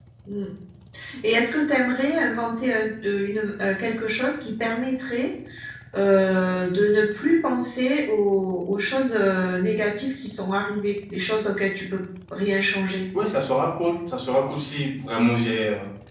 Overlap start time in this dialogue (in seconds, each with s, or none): none